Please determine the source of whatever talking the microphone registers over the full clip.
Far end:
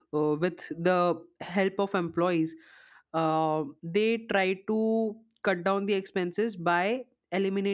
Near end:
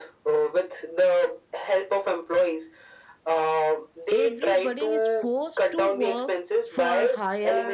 both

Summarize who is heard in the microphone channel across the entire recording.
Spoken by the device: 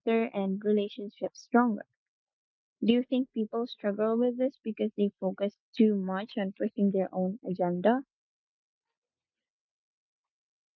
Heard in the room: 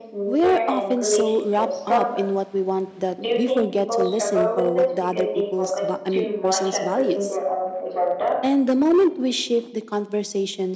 both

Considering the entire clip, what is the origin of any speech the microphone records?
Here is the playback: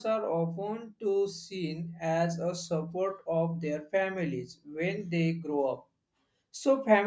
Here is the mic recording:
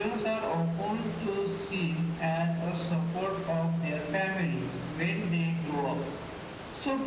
echo only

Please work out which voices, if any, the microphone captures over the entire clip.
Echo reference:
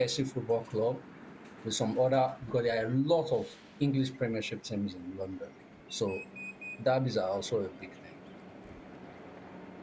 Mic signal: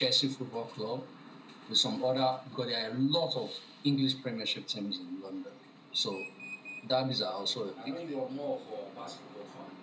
both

